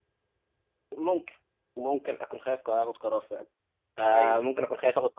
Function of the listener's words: listening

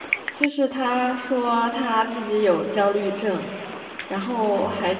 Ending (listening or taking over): listening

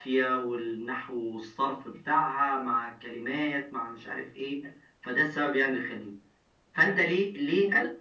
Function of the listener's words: listening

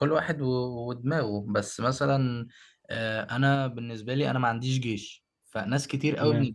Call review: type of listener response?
listening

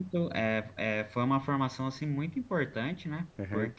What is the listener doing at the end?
listening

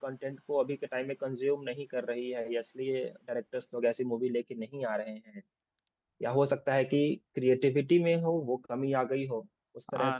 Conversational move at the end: taking over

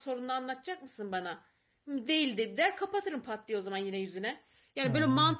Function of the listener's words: listening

